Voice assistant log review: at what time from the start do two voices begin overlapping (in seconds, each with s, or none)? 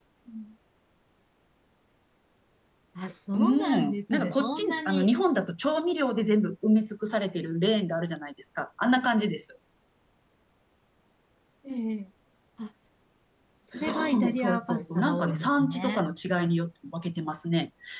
3.3 s